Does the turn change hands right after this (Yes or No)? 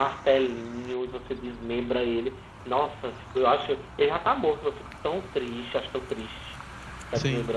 Yes